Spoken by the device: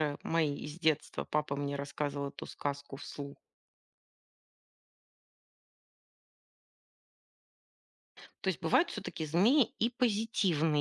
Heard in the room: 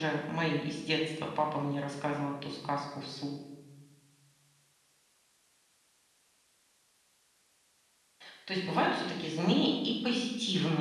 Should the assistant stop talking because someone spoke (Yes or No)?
No